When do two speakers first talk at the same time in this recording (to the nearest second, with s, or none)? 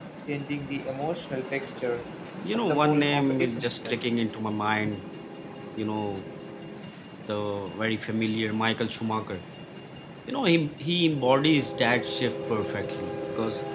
3 s